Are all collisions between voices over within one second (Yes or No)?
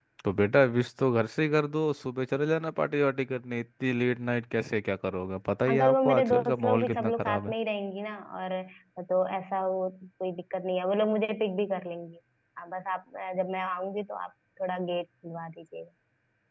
No